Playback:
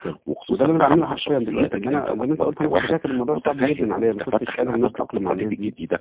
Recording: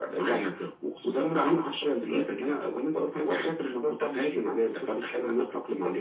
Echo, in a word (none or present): present